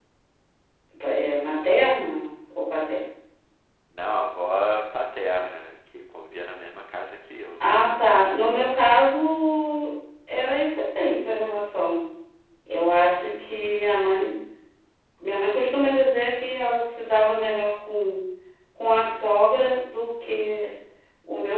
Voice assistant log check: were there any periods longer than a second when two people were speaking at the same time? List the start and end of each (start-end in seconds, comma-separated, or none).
none